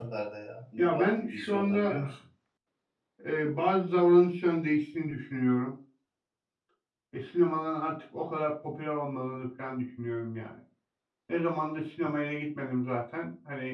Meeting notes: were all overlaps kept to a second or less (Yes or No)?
No